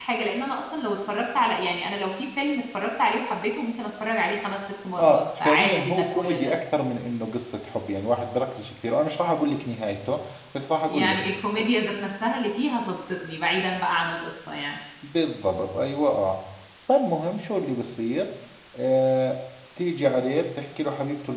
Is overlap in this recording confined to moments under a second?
No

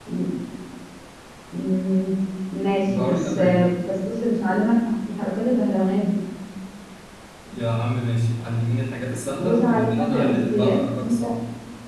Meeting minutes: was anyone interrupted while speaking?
Yes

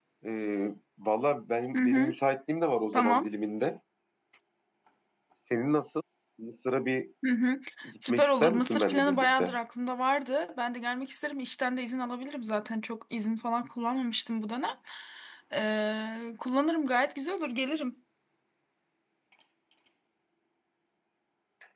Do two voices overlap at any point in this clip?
Yes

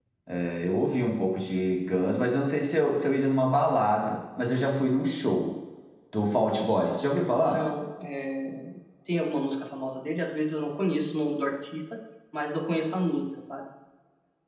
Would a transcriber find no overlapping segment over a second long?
Yes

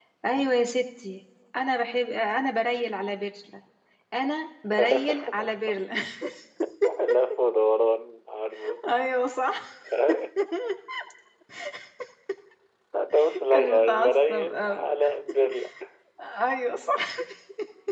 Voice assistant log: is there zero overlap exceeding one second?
No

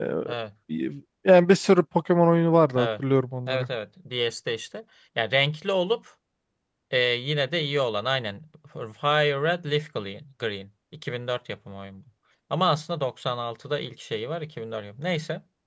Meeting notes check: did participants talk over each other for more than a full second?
No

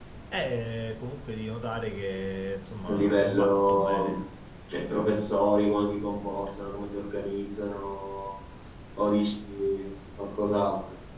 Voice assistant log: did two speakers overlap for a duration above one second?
Yes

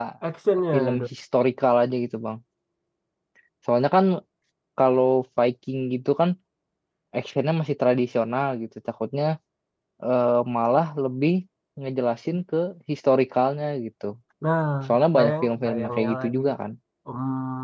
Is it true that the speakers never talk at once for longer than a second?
No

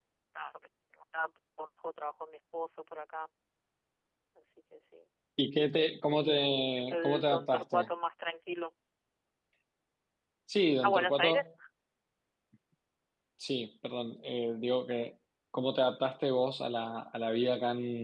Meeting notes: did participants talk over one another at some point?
Yes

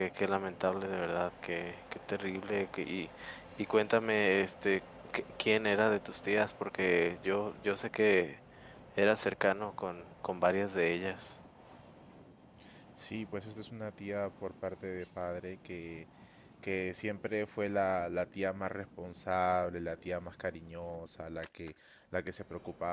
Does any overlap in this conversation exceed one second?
No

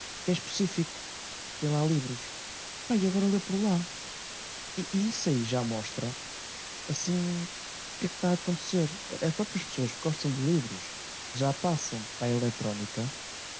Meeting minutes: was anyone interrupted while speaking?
No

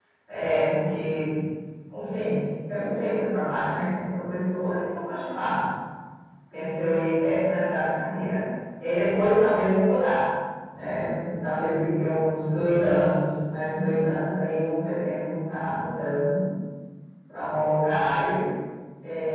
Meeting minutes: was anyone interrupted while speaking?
No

